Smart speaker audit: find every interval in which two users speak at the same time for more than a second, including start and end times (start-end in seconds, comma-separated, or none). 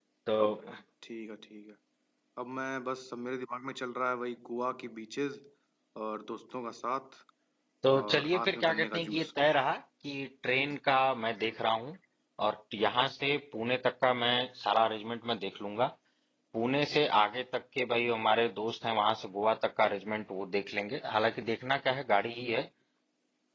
8.0-9.3